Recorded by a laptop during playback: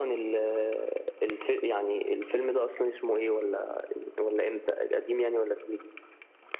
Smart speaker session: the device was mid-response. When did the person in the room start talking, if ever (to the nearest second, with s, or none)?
none